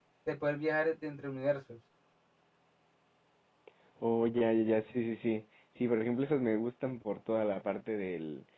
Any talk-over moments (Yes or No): No